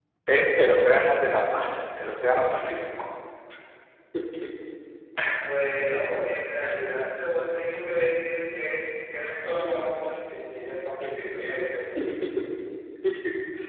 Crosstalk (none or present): none